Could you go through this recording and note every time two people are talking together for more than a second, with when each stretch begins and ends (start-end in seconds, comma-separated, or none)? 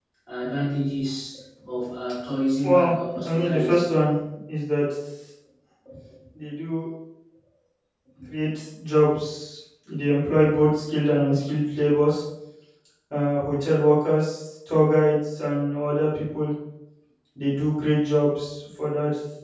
2.6-3.9